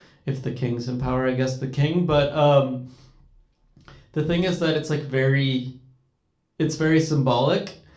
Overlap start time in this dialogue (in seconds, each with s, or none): none